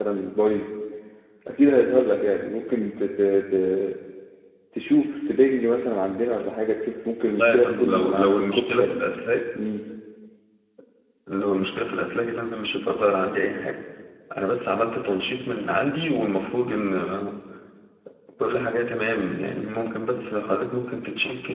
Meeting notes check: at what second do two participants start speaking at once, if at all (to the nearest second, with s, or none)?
7 s